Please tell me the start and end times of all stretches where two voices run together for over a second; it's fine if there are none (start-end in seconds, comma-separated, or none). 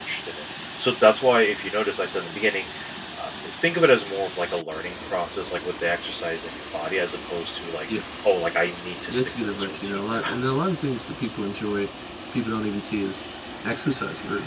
9.1-10.4